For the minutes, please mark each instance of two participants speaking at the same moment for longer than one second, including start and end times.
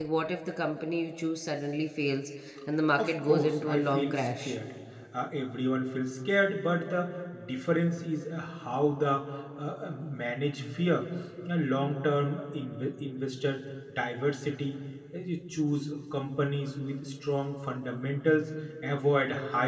3.0-4.5

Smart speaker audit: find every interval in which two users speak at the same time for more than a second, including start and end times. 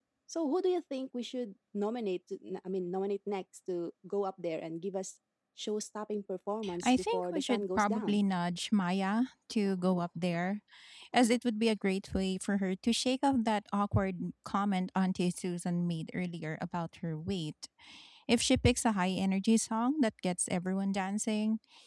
6.8-8.2

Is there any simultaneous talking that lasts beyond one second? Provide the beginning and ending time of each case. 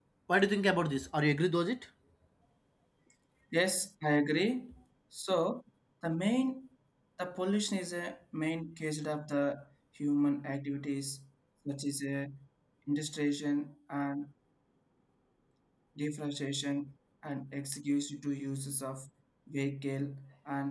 none

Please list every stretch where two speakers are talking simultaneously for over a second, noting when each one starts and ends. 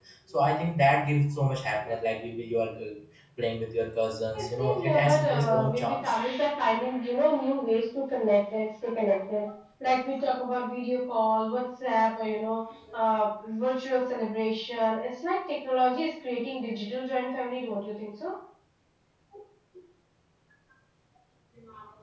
4.3-6.2

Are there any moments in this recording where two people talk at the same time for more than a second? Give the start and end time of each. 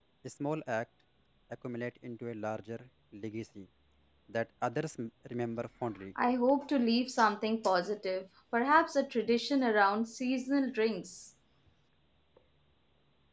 none

